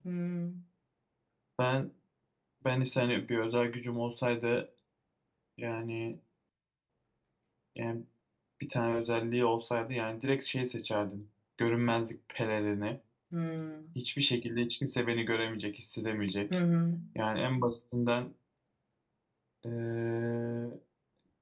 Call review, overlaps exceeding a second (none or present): none